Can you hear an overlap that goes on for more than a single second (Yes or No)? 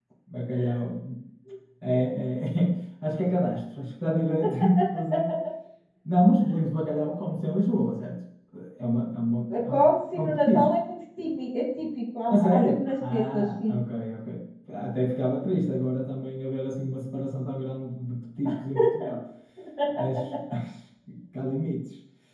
Yes